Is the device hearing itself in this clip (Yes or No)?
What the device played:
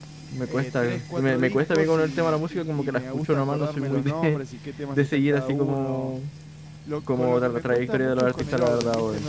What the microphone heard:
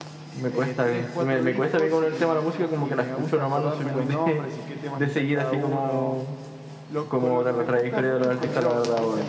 Yes